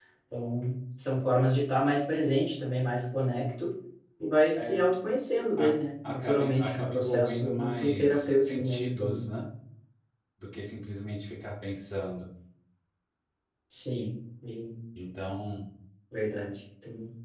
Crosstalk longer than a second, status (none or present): present